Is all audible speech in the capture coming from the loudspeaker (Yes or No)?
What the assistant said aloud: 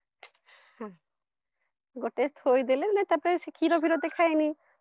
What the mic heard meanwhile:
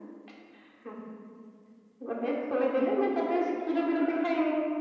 Yes